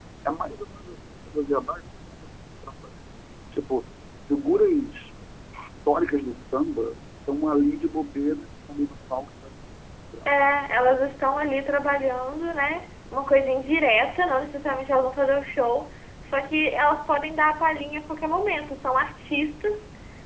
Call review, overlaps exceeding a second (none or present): none